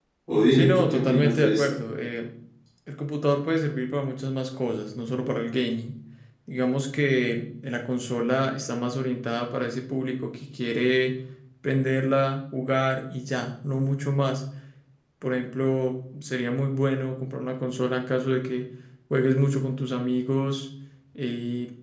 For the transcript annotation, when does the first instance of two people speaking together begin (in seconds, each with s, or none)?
0.5 s